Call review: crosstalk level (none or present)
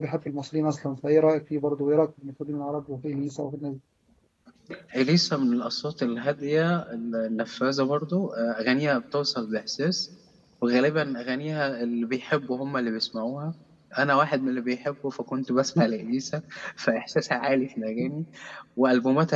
none